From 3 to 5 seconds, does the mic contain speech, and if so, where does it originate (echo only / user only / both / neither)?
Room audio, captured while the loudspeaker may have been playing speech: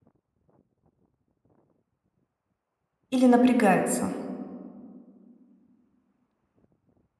user only